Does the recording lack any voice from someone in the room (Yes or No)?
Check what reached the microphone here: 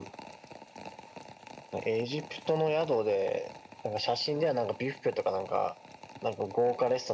Yes